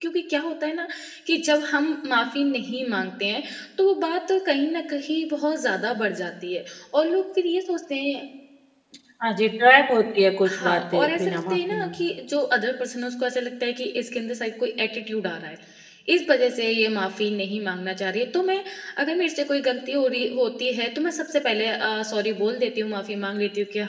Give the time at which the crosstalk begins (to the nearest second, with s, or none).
10 s